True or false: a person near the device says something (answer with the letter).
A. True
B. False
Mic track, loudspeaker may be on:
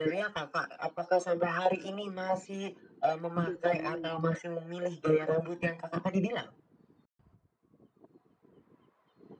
A